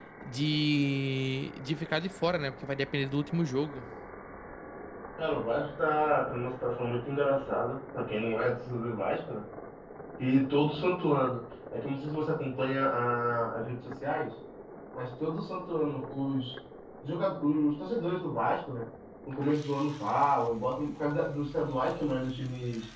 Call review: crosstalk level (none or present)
none